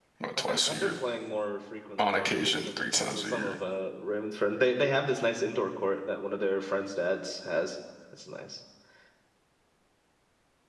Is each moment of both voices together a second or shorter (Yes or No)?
No